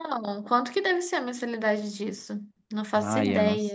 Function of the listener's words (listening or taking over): taking over